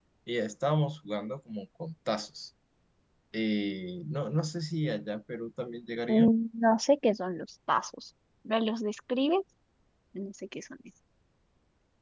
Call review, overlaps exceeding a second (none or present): none